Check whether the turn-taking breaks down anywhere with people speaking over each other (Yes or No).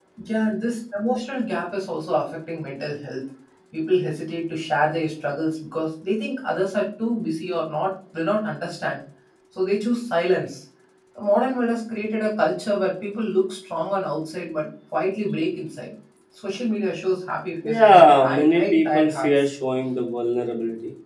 Yes